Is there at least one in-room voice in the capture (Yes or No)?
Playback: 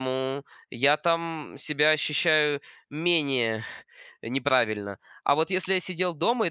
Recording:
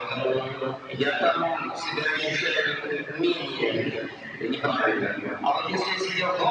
No